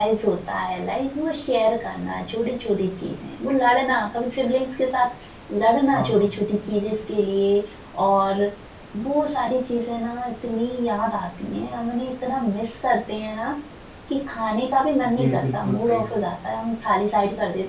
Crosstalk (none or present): present